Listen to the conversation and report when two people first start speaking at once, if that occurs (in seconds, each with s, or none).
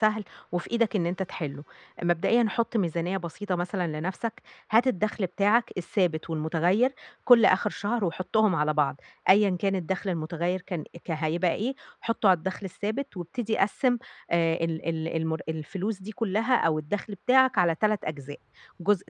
none